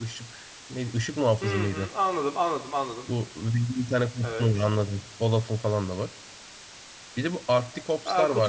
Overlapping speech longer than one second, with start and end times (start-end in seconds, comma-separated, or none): none